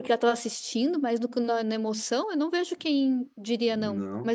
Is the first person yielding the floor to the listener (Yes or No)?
Yes